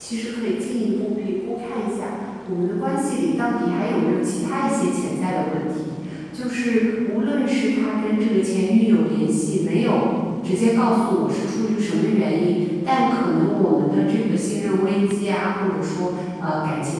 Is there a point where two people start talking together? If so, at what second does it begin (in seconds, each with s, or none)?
none